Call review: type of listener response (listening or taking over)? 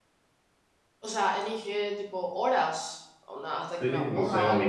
taking over